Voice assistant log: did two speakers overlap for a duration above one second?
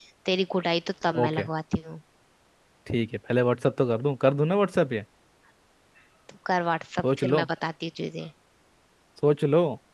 No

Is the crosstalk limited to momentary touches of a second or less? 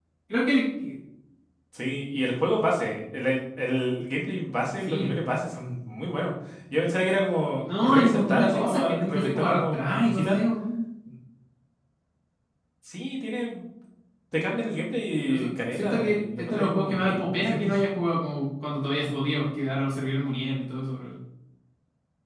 No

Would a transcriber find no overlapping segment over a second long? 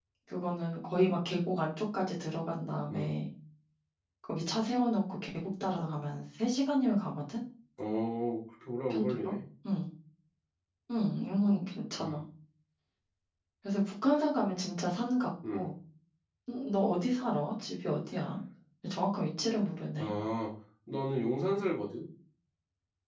Yes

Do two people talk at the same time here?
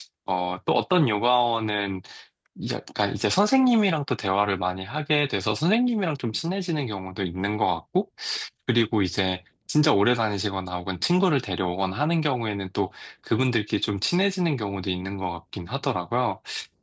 No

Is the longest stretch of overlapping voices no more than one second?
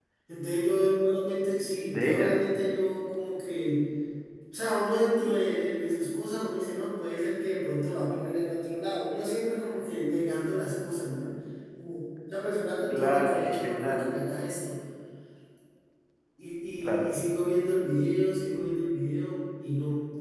No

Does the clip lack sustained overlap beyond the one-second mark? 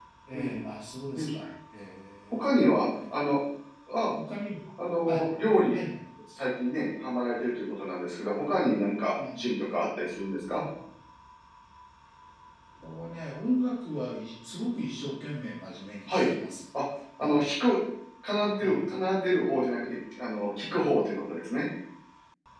Yes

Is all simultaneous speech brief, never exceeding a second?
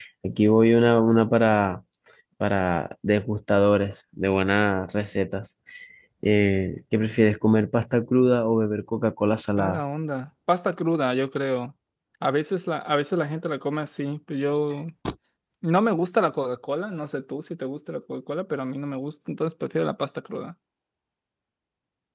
Yes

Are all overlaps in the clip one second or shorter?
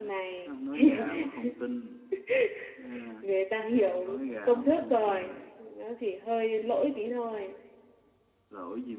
No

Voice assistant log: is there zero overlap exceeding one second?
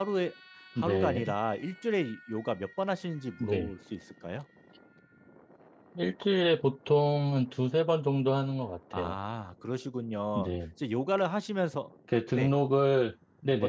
Yes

